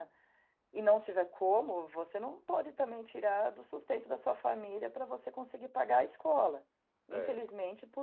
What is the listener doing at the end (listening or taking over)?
listening